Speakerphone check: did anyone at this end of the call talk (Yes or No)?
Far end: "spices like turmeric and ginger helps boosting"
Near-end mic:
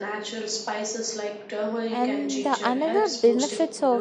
Yes